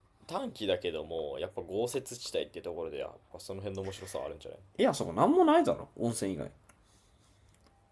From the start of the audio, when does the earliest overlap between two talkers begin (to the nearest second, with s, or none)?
none